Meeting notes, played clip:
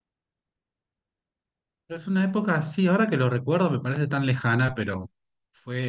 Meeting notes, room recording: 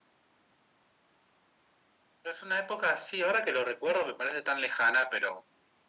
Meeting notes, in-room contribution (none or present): none